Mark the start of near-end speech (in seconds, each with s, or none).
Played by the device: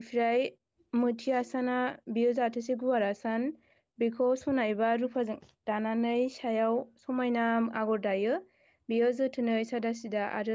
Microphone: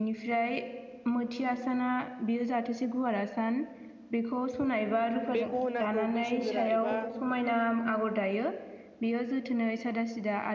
5.3 s